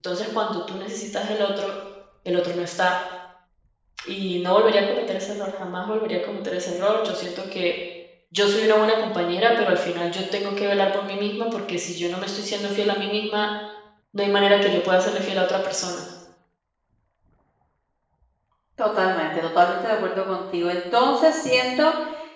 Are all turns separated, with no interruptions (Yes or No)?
Yes